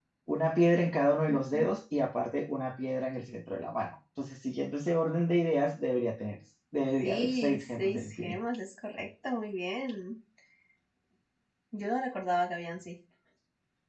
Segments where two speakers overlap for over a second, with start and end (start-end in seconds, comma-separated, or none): 7.0-8.4